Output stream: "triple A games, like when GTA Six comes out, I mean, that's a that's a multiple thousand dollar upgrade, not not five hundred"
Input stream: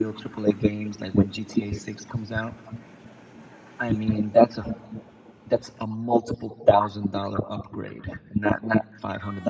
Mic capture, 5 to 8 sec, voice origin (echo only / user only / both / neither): echo only